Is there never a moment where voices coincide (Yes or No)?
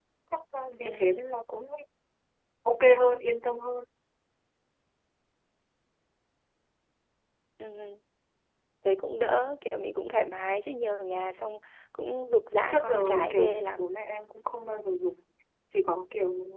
No